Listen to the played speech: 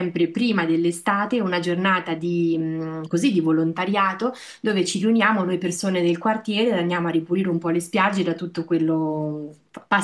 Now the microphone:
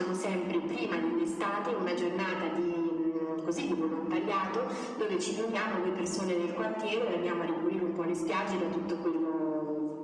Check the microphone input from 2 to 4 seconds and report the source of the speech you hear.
echo only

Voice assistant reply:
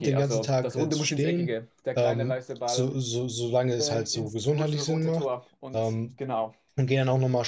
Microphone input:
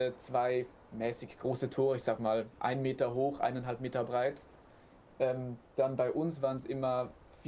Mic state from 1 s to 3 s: user only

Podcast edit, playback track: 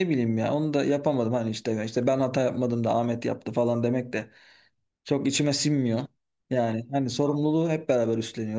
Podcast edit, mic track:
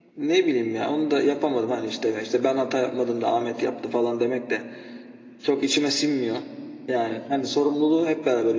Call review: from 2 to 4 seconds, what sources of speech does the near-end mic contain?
echo only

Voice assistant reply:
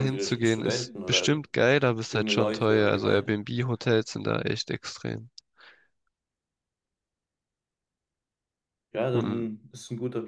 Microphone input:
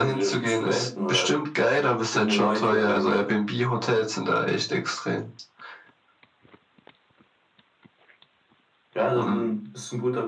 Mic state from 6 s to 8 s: neither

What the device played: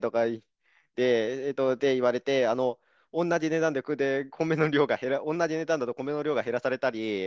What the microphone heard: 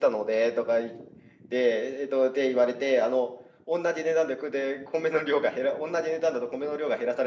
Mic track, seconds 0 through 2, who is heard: echo only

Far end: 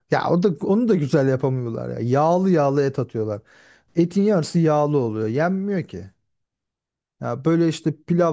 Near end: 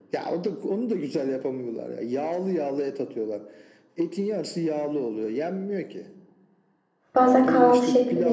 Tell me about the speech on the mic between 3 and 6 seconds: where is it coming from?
echo only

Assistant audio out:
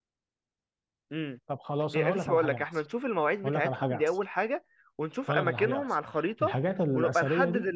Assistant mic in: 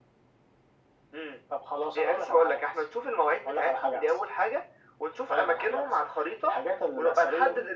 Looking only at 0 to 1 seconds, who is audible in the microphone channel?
neither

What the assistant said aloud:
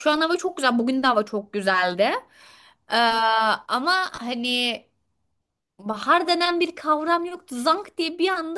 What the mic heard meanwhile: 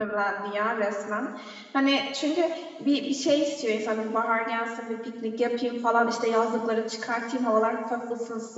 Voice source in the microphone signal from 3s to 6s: user only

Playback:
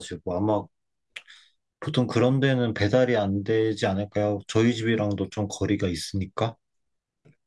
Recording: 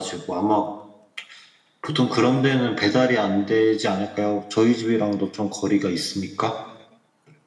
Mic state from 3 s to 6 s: echo only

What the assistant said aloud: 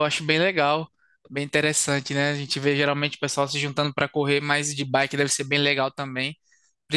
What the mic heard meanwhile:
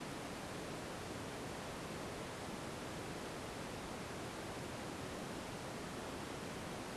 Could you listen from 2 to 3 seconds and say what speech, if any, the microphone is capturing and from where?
neither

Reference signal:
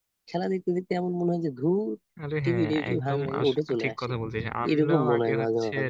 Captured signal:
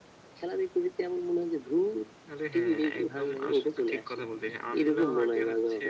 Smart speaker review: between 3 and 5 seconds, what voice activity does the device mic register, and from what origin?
echo only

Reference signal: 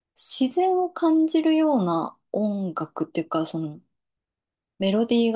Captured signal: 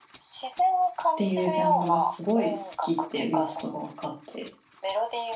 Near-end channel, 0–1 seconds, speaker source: echo only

